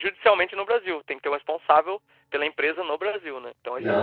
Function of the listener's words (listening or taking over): taking over